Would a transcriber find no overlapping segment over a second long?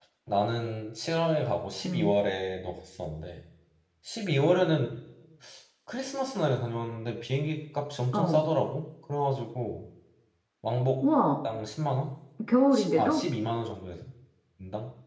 Yes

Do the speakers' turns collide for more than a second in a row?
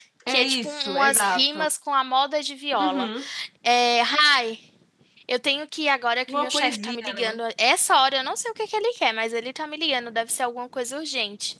Yes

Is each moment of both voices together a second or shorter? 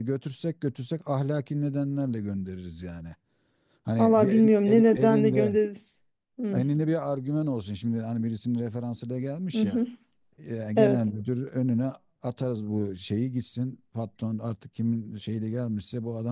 No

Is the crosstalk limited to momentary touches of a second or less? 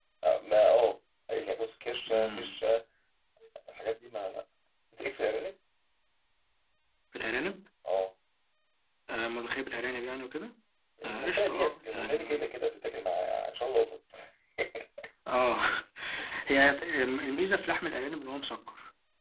No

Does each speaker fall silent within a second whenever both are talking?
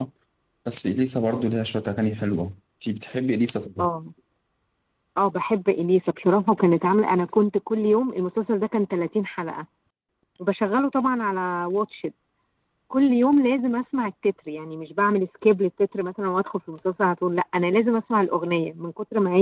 Yes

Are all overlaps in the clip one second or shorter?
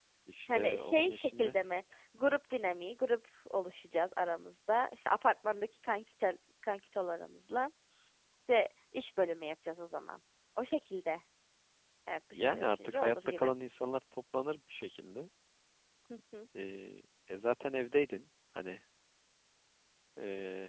No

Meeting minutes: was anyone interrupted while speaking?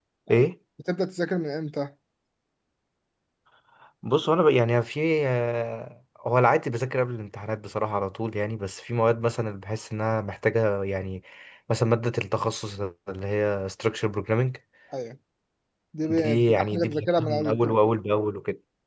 Yes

